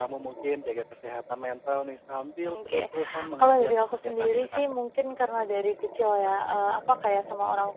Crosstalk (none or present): present